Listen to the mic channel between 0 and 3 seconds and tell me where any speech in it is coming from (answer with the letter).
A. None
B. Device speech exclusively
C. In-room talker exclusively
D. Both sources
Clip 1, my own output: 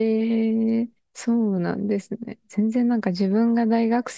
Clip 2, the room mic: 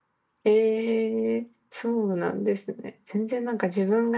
B